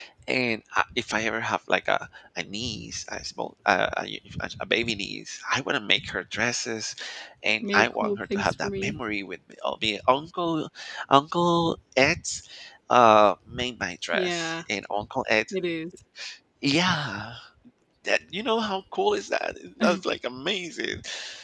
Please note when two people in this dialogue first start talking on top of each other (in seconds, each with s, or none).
7.7 s